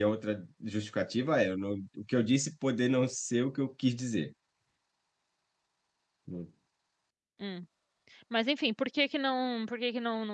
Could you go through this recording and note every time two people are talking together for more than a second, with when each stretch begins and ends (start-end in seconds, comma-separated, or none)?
none